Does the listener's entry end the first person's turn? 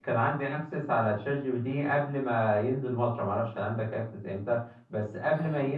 No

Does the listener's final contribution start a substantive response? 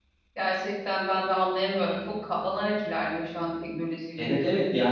Yes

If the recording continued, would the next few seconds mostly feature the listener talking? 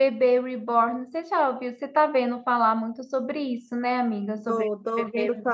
Yes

